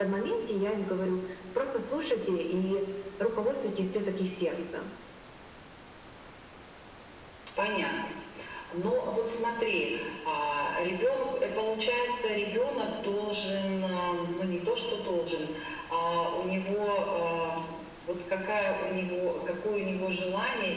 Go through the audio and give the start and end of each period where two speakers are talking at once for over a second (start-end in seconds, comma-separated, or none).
none